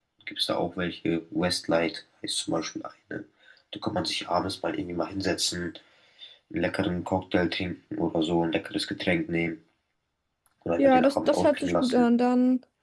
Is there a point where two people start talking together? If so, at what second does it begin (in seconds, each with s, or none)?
10.8 s